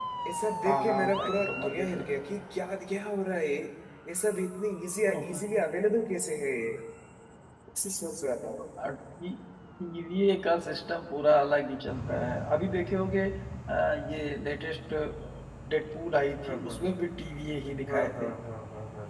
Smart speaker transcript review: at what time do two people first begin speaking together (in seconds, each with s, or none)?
0.6 s